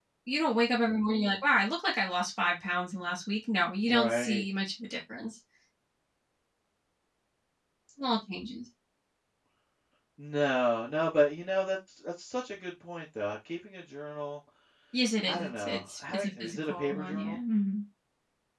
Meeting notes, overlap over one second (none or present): present